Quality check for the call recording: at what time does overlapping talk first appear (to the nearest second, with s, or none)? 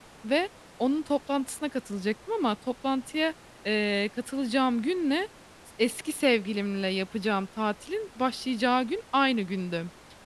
none